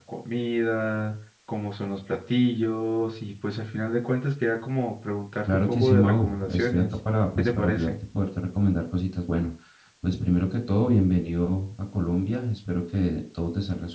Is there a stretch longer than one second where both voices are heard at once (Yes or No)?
Yes